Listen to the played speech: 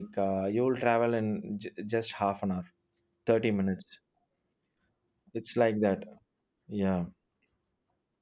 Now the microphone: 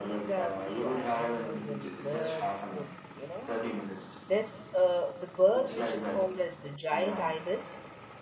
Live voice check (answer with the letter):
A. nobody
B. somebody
B